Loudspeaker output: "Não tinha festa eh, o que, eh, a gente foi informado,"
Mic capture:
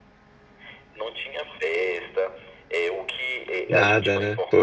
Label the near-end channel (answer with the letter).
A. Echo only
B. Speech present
B